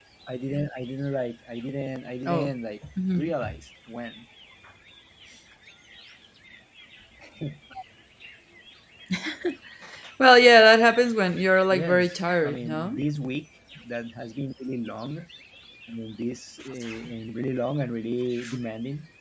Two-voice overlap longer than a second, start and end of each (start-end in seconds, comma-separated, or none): 11.7-13.0